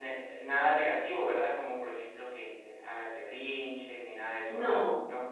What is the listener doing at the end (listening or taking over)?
taking over